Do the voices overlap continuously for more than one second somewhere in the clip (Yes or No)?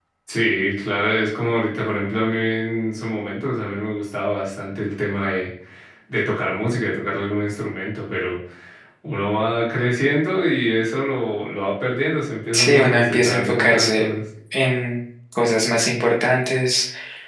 Yes